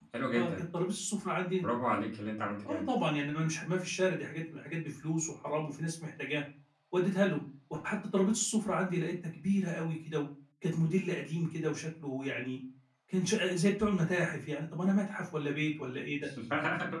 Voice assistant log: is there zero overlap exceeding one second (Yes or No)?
Yes